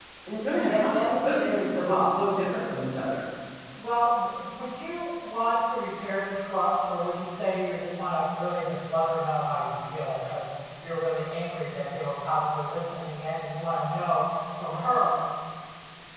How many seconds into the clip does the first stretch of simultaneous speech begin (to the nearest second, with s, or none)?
1 s